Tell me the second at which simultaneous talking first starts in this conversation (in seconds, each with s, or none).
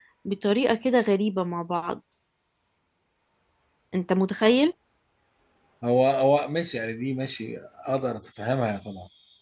none